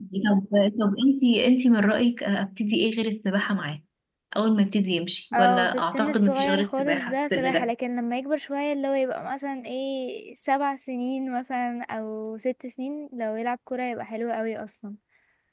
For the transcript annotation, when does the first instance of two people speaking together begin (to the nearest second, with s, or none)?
5 s